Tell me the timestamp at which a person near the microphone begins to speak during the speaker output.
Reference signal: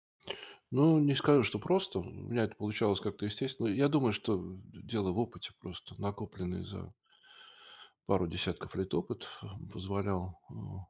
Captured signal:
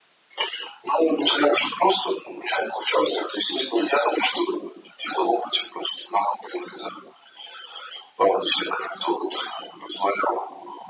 none

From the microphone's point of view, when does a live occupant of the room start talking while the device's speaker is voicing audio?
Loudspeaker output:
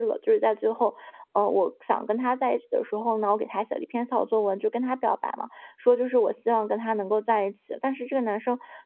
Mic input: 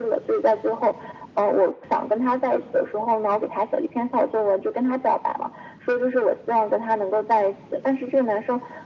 none

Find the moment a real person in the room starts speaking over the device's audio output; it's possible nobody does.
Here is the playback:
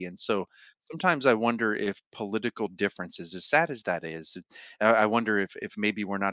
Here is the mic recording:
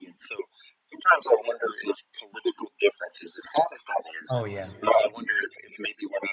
4 s

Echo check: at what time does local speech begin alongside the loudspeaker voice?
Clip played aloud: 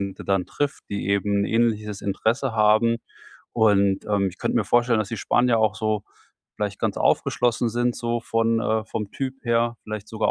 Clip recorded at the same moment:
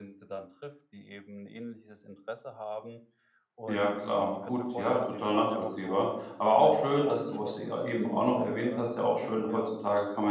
4 s

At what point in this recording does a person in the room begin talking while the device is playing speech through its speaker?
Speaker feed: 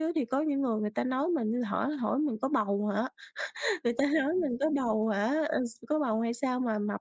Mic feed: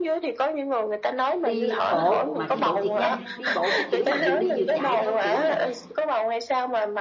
1 s

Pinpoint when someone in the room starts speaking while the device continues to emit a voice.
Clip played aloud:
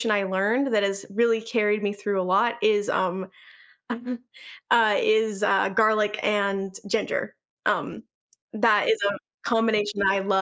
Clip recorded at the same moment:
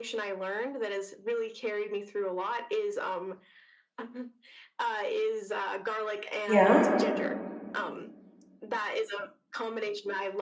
6 s

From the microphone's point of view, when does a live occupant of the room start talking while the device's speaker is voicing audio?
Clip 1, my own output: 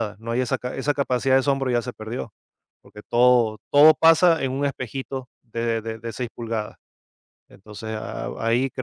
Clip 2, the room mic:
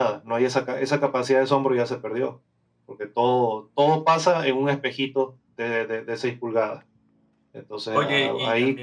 8 s

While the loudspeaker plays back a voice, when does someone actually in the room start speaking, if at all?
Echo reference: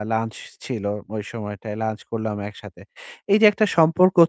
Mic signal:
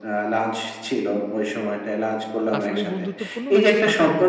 3 s

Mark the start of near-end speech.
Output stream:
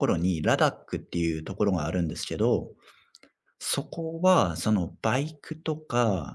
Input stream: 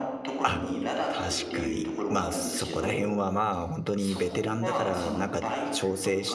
0 s

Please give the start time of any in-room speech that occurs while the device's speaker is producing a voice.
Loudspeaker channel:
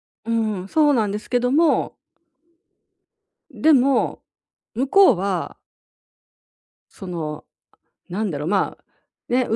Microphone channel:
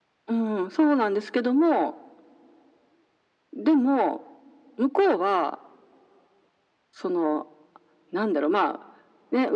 none

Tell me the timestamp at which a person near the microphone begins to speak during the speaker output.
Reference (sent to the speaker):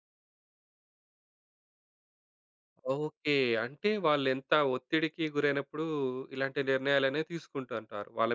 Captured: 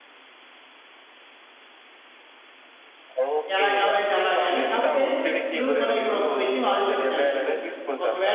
4 s

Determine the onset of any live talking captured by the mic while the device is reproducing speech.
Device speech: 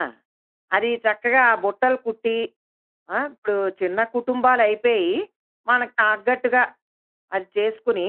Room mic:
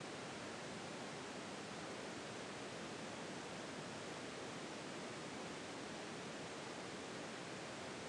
none

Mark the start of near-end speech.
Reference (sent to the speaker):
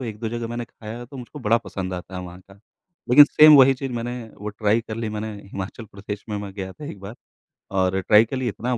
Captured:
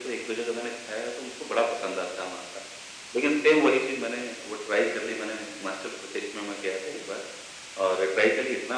none

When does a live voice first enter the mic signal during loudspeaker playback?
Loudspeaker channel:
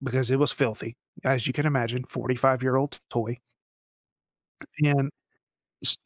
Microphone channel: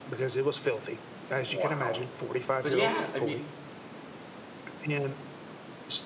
1 s

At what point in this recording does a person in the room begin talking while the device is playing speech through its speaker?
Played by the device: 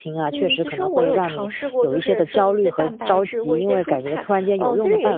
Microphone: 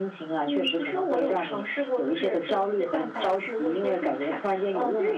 none

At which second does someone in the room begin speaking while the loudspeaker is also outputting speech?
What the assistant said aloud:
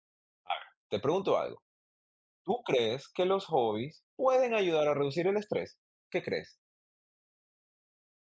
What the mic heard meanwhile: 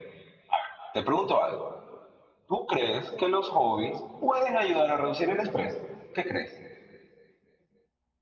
none

